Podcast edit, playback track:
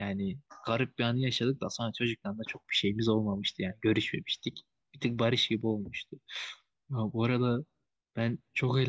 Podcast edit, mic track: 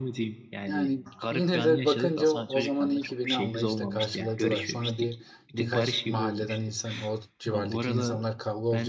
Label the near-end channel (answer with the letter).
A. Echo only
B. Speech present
B